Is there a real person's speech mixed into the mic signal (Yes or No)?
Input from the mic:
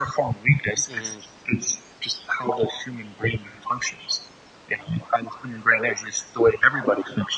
Yes